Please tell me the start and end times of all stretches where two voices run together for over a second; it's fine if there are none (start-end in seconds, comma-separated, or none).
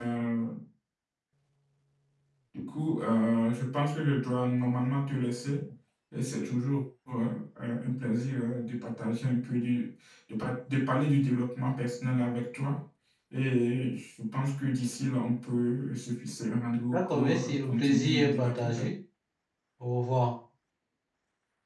16.9-18.9